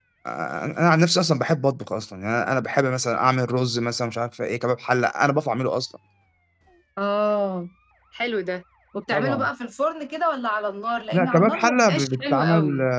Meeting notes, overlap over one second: present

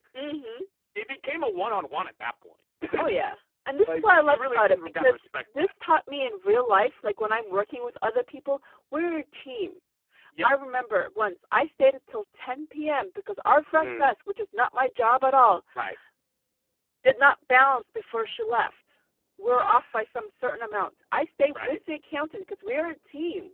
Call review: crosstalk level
present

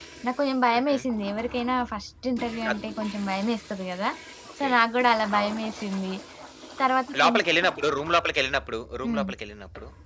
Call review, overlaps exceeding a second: none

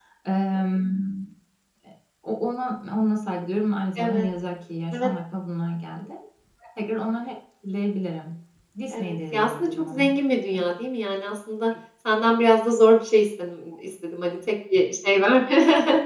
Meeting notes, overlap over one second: present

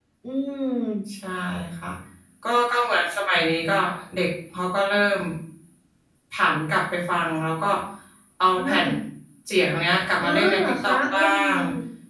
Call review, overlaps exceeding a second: present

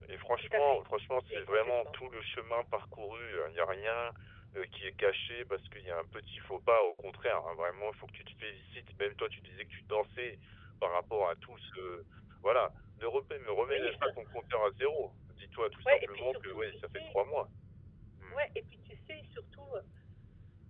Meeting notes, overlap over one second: present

